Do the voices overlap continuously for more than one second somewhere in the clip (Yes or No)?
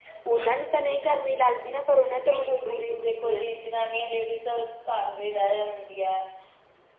Yes